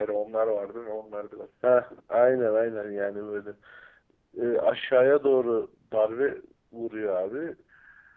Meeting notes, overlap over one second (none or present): none